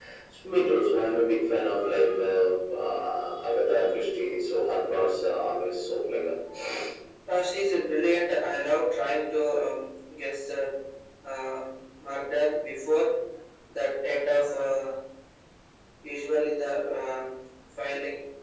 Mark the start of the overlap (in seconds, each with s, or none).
none